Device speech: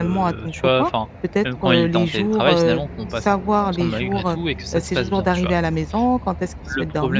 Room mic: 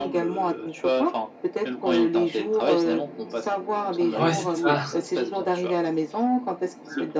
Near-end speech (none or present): present